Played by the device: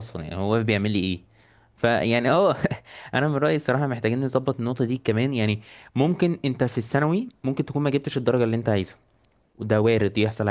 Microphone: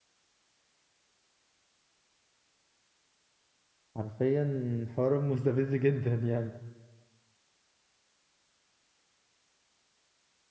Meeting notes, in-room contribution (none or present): present